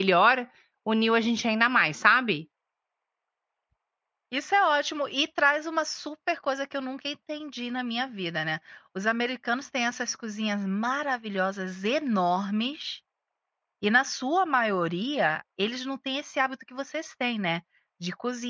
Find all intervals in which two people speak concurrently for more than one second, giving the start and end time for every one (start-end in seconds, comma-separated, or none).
none